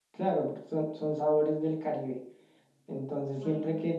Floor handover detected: No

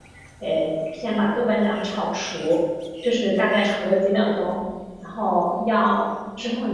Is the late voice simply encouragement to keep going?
Yes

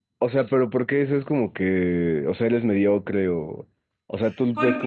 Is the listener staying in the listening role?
Yes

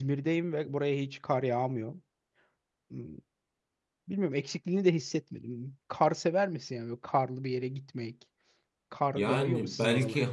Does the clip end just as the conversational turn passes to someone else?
Yes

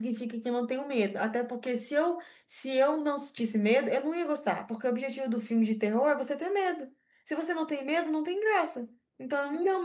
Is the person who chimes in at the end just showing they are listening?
No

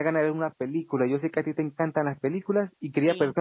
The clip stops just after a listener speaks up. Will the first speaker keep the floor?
Yes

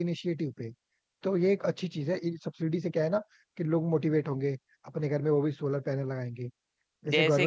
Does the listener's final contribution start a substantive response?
Yes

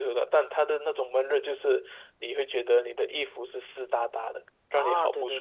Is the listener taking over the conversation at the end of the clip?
Yes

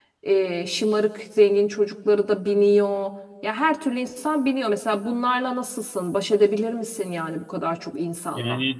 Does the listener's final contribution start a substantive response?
Yes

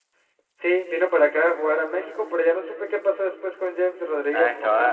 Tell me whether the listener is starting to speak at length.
Yes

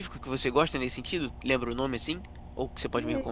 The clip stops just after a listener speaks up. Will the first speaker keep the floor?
No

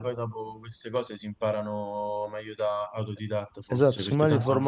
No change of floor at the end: No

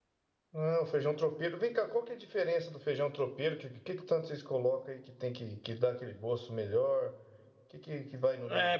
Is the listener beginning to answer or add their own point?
Yes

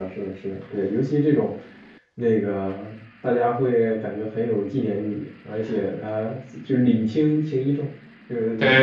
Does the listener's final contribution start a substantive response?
Yes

